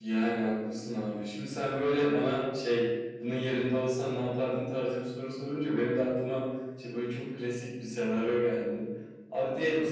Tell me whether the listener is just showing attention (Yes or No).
Yes